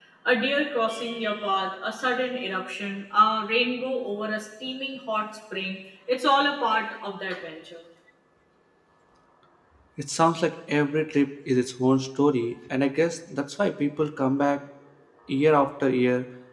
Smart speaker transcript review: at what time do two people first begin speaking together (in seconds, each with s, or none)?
none